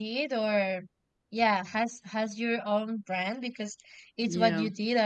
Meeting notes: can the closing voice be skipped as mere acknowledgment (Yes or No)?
Yes